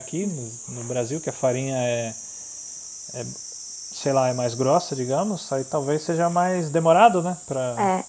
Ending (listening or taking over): taking over